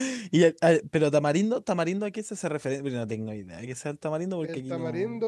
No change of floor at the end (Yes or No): No